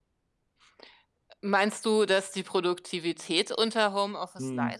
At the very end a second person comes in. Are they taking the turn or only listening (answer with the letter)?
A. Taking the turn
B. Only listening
A